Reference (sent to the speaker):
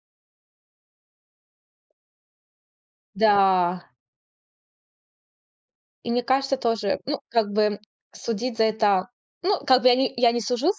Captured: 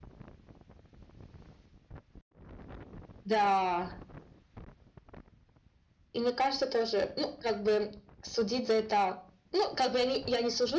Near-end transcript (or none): none